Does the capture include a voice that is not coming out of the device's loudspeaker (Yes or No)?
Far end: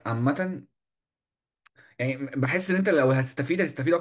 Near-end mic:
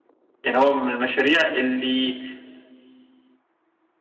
Yes